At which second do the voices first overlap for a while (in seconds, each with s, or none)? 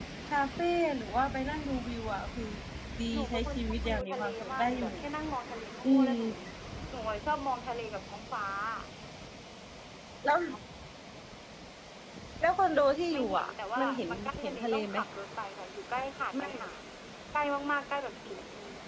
3.1 s